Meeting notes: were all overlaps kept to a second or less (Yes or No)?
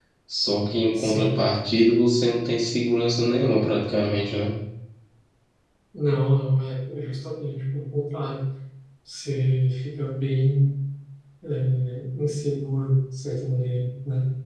Yes